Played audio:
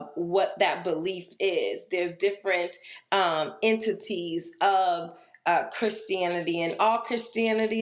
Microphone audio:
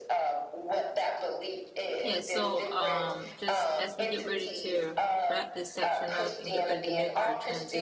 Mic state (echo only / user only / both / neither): both